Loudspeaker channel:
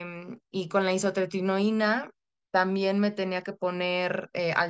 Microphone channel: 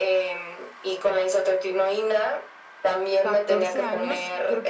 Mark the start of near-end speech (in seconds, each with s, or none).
3.2 s